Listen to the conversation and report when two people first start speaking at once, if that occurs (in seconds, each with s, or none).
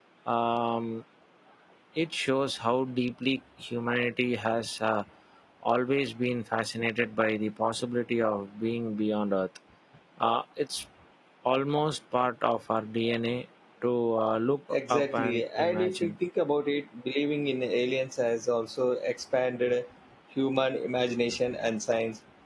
14.7 s